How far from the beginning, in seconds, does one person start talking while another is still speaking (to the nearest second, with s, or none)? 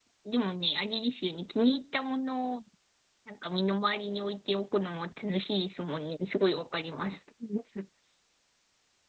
none